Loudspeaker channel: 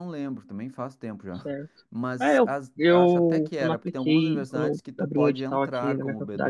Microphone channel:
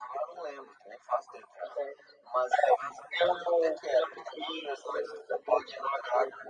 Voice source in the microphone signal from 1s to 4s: echo only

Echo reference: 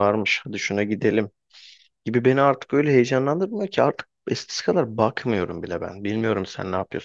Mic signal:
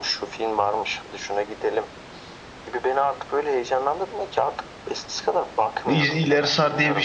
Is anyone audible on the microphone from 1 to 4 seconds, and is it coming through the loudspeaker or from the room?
echo only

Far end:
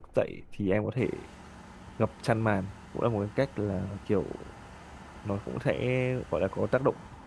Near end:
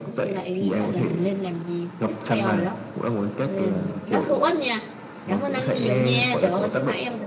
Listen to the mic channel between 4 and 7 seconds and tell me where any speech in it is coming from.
both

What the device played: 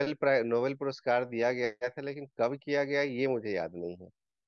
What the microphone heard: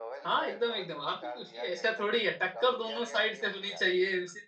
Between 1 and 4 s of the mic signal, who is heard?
both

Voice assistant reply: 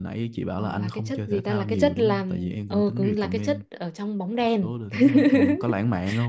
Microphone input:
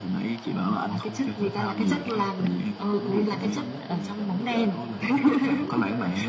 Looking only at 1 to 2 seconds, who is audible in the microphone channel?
echo only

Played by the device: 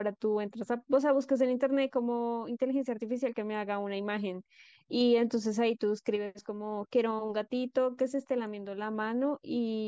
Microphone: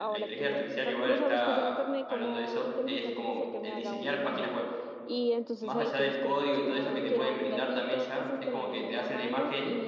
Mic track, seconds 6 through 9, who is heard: both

